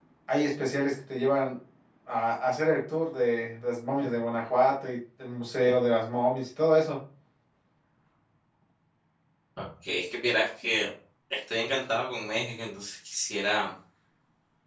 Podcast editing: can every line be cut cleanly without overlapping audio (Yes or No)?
Yes